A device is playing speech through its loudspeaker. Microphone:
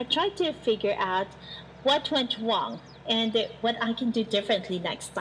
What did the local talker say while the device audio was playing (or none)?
none